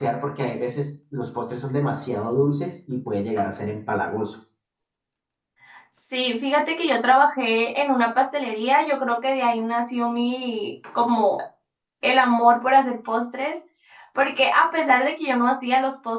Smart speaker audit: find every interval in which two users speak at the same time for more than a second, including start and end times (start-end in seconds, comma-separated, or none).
none